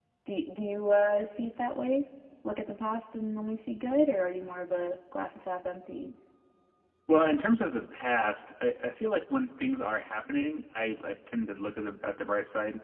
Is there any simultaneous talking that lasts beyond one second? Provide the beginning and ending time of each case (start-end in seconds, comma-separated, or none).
none